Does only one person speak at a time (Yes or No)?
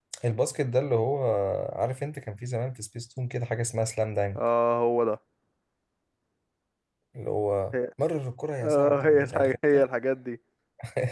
No